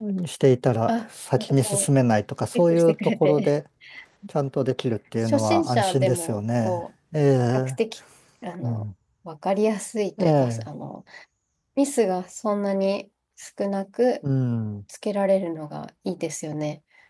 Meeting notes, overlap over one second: present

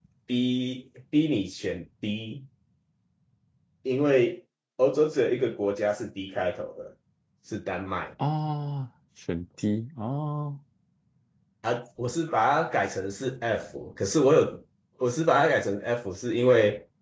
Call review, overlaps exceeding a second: none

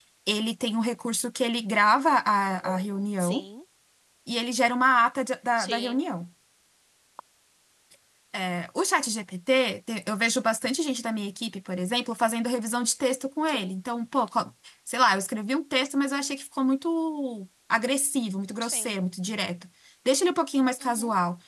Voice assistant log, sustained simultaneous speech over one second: none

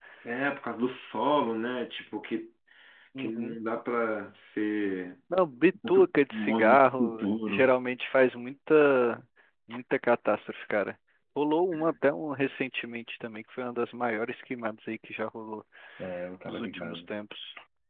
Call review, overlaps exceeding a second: present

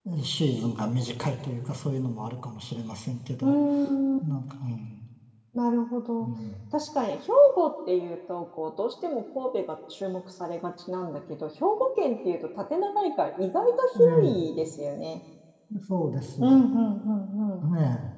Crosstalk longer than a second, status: none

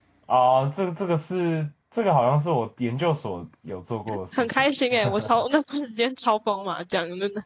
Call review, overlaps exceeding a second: none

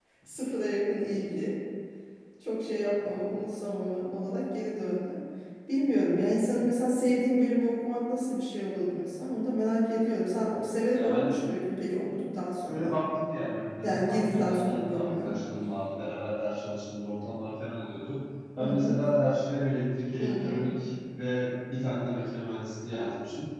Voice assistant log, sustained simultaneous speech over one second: present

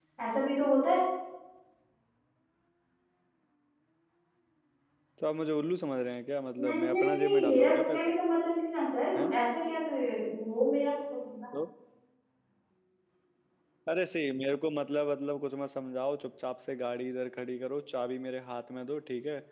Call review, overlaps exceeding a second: present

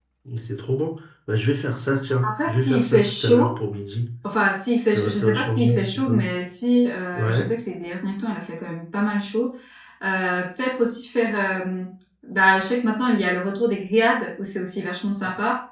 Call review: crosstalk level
present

